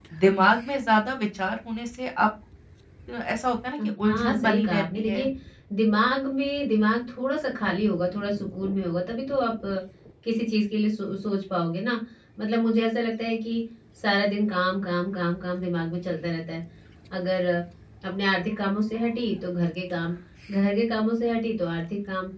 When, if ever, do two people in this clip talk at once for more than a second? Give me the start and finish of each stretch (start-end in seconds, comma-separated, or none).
3.8-5.3